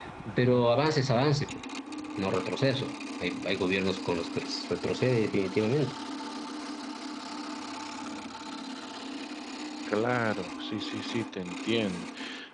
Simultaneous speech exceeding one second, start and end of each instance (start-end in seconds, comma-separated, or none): none